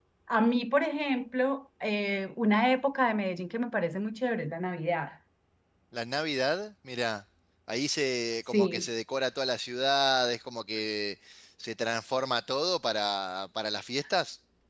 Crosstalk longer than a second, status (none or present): none